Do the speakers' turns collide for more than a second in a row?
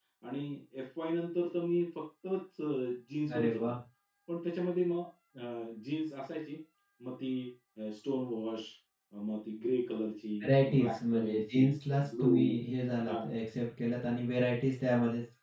Yes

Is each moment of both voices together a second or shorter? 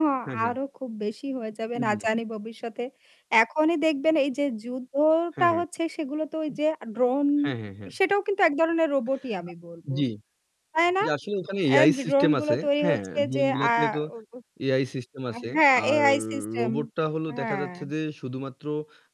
No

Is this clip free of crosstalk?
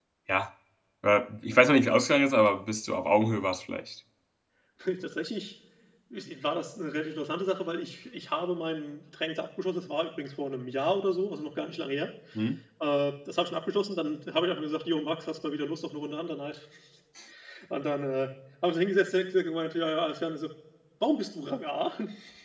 Yes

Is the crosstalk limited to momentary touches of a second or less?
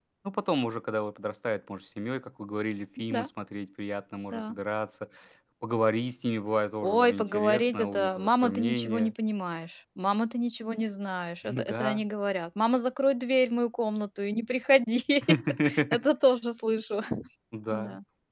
No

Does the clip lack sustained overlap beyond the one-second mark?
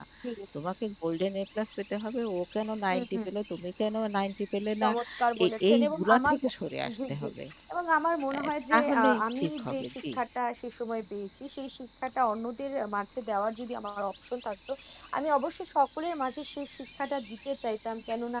No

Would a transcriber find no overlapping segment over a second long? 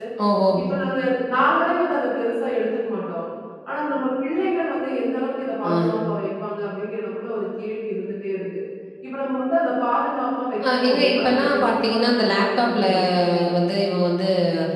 No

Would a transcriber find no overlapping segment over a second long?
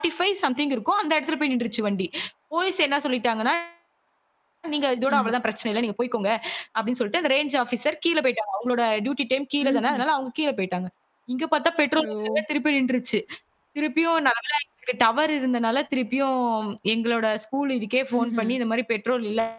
Yes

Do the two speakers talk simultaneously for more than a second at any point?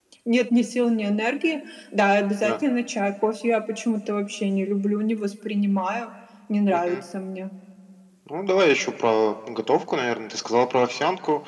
No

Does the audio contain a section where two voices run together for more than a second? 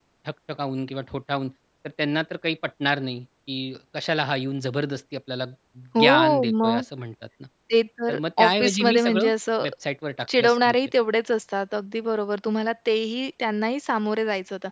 Yes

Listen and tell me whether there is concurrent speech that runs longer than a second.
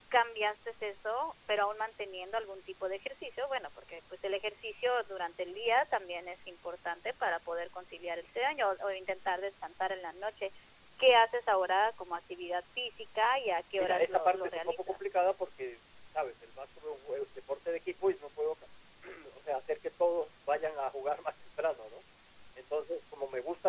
Yes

